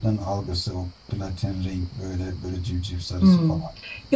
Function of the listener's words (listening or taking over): taking over